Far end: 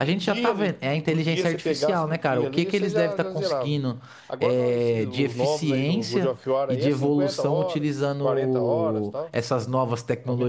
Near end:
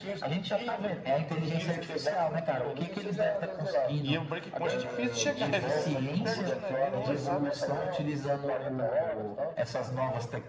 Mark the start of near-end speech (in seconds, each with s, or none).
4.0 s